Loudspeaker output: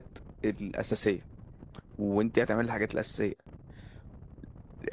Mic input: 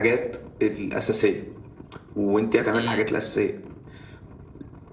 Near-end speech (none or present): present